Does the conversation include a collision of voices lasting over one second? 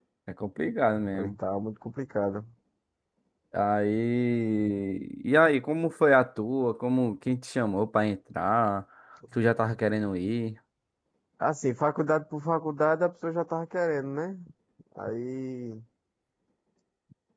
No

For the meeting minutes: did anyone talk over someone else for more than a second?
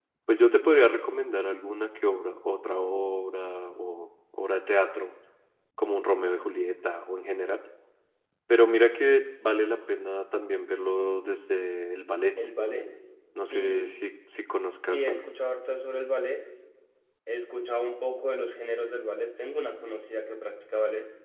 No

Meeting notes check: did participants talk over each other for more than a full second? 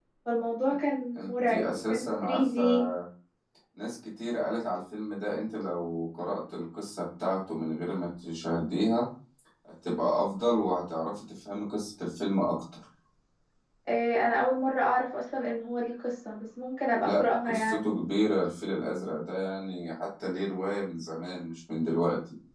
Yes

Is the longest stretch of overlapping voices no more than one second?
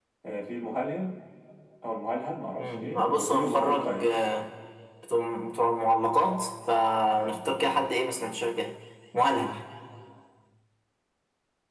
No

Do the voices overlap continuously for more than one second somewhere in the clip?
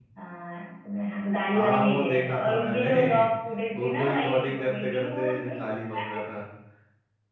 Yes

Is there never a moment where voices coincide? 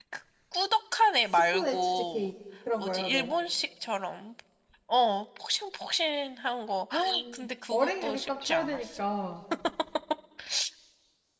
No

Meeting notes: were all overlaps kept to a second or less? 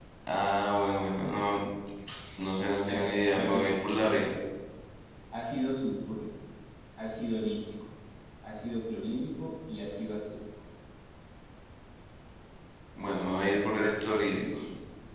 No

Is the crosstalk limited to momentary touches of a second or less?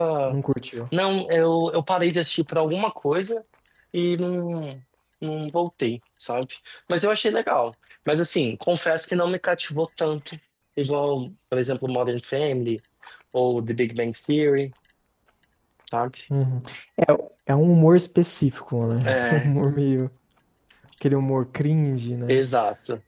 Yes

